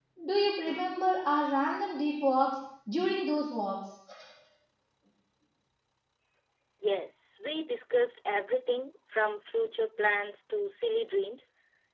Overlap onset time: none

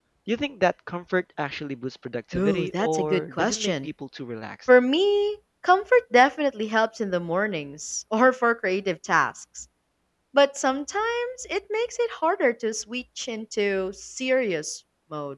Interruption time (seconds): 2.3 s

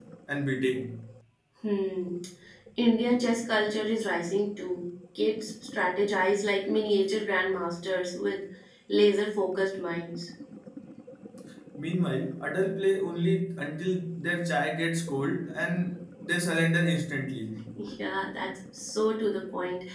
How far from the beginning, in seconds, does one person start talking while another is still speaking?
none

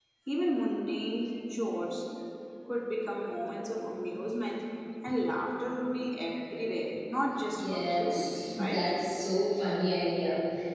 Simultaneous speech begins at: 7.5 s

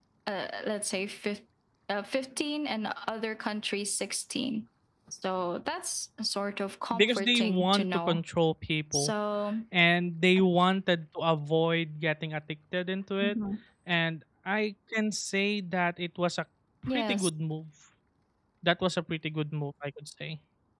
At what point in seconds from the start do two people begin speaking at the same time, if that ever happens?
6.9 s

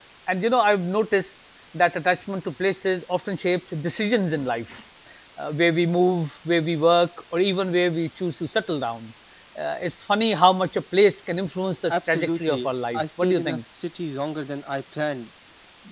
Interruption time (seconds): 11.9 s

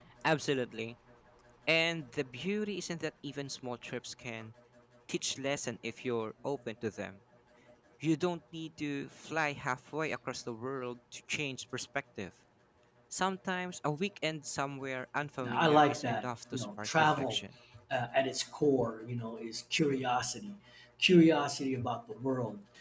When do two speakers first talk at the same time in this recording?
15.4 s

